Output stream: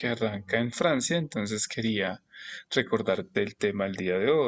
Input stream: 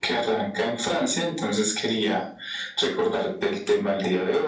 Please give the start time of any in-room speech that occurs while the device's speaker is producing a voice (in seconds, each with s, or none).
none